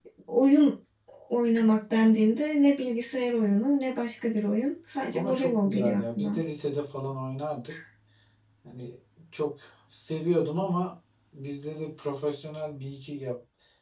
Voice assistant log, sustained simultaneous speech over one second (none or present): present